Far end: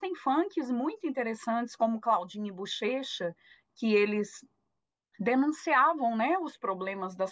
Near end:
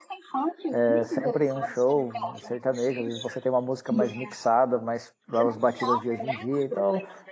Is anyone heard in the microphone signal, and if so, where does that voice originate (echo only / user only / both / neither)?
both